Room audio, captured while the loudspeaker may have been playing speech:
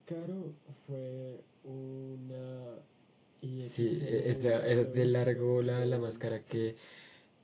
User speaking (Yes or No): Yes